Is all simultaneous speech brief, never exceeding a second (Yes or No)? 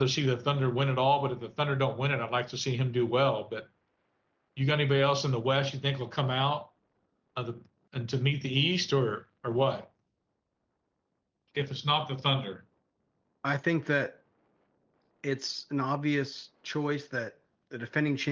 Yes